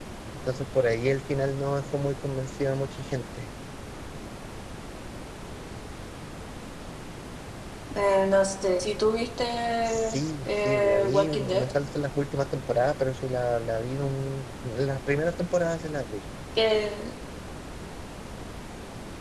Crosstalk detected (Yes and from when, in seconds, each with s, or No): Yes, from 9.8 s